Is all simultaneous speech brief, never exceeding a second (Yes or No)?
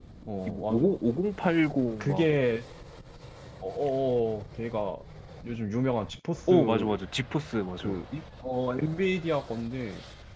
Yes